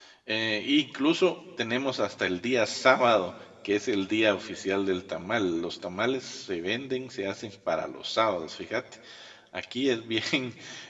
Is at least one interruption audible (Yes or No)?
No